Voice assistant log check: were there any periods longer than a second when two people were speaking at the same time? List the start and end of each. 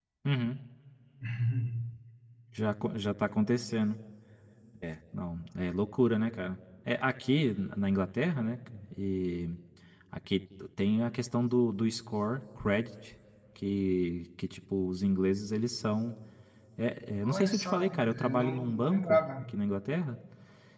17.2-19.5

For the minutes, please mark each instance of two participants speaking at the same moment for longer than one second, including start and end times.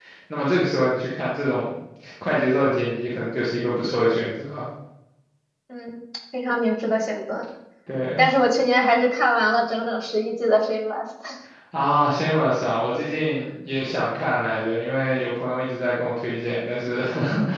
none

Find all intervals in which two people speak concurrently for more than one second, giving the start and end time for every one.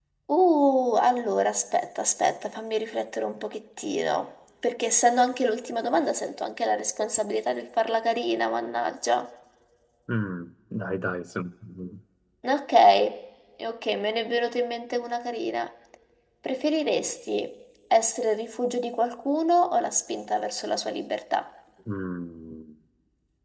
none

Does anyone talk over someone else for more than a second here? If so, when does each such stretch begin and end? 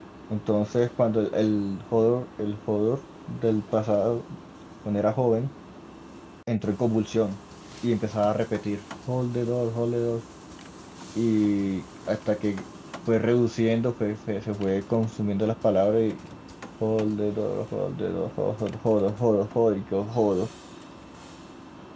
none

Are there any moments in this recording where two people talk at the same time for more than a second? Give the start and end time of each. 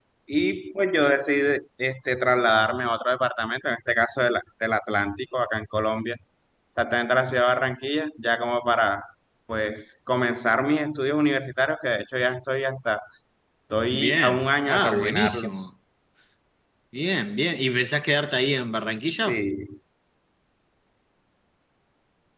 14.0-15.7

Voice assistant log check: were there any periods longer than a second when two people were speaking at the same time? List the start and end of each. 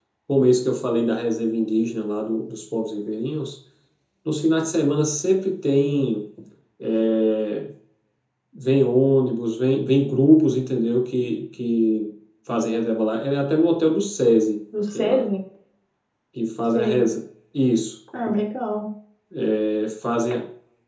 none

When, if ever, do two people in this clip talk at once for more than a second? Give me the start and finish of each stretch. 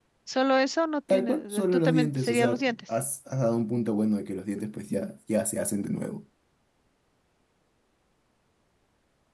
1.1-2.8

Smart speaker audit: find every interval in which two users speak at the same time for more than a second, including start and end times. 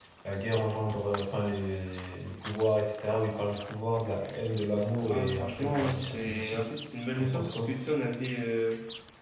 5.1-6.6

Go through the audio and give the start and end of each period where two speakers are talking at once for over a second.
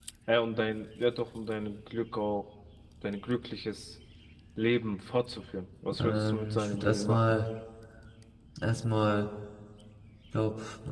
6.0-7.2

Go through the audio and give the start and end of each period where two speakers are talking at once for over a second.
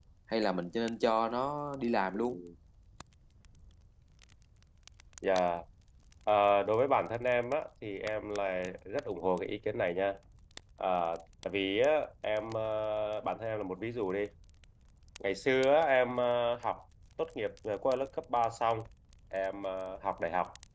none

